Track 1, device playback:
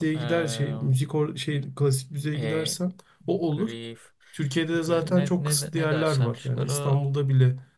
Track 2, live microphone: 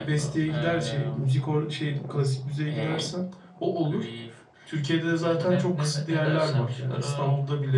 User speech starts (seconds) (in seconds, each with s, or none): 5.4 s